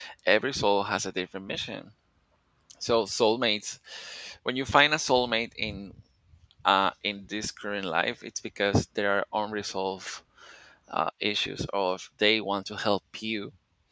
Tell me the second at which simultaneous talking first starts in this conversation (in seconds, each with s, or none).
none